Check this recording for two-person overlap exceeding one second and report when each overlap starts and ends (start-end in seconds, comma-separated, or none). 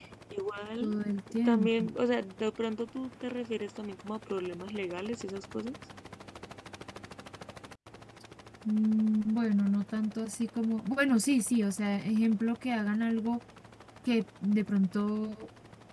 none